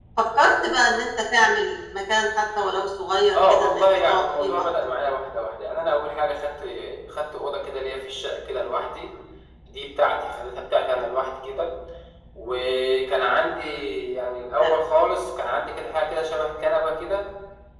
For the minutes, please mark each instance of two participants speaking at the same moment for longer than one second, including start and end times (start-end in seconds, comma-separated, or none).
3.4-4.6